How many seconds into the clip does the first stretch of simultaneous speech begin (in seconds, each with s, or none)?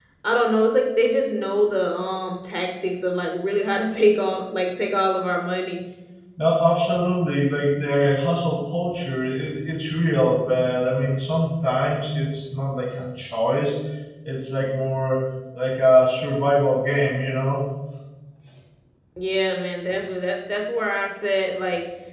none